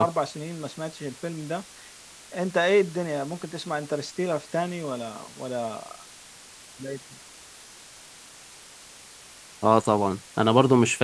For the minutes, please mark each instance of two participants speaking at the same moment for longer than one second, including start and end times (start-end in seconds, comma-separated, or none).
none